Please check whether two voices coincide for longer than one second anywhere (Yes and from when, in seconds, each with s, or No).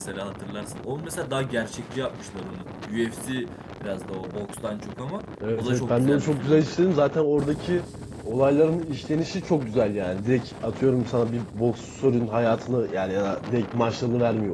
Yes, from 5.4 s